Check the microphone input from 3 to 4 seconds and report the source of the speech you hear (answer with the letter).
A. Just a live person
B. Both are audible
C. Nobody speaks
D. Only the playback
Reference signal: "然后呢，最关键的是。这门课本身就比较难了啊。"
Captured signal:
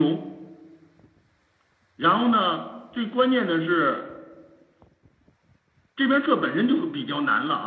D